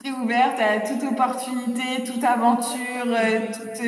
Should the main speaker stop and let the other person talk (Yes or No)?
No